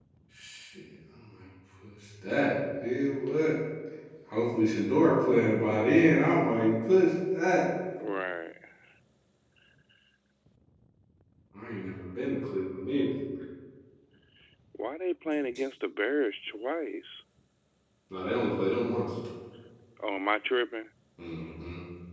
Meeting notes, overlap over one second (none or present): none